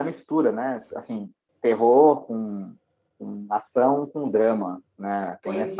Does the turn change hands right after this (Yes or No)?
Yes